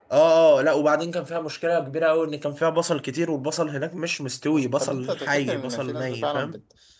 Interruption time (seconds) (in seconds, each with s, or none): 4.5 s